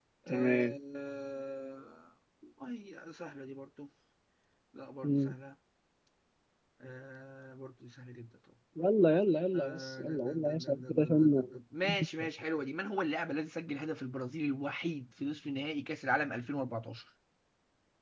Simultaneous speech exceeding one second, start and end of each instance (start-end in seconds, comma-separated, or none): 9.6-11.4